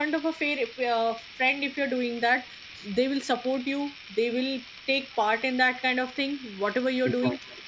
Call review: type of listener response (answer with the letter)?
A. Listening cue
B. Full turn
A